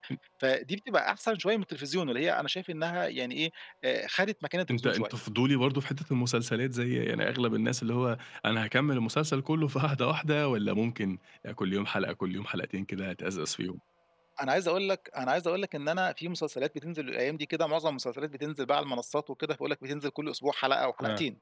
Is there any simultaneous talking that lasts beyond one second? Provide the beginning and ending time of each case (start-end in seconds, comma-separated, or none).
none